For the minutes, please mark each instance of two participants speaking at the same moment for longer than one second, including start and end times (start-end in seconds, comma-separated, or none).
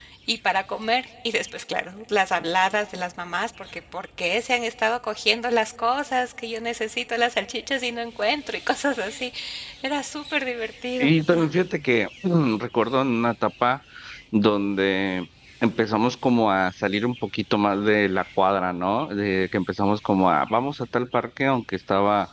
none